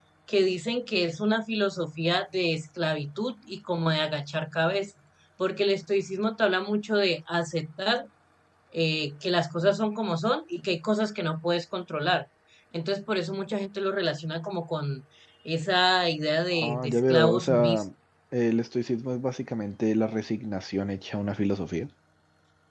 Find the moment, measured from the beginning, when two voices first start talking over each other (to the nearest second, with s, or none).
17 s